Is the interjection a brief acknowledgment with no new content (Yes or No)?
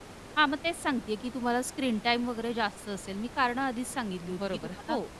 No